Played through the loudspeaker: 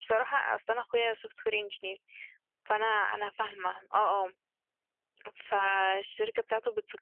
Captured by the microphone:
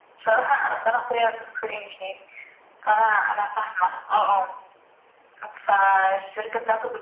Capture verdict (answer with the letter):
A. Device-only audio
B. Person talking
A